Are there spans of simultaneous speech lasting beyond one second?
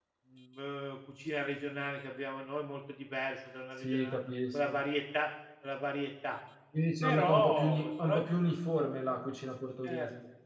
Yes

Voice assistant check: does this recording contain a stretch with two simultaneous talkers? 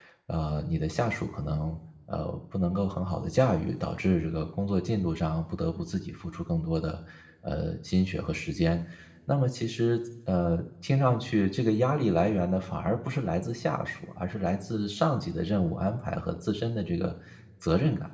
No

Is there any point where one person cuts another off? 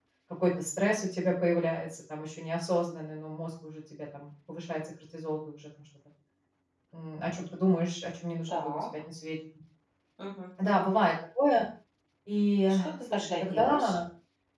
Yes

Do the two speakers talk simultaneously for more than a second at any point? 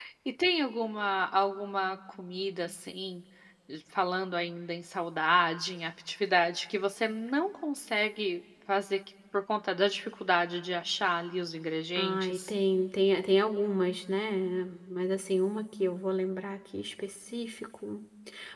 No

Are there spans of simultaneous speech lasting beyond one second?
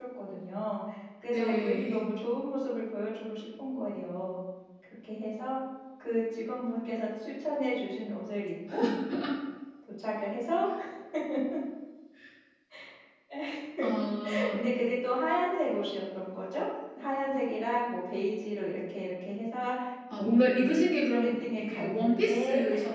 Yes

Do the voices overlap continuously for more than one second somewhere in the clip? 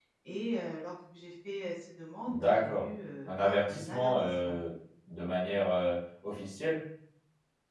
Yes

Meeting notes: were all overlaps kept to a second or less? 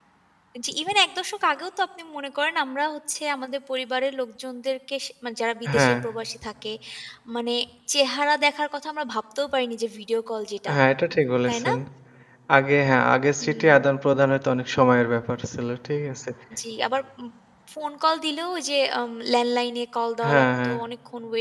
Yes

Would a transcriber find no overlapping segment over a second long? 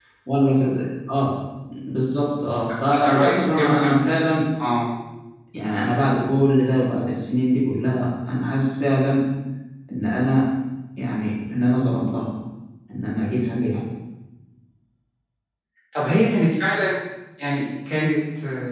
No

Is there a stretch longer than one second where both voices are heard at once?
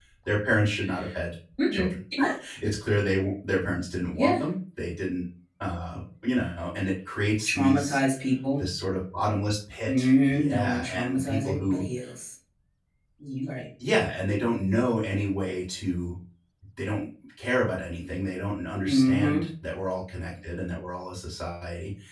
Yes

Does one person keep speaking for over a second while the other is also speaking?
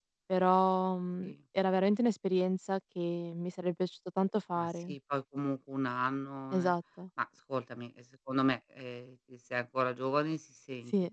No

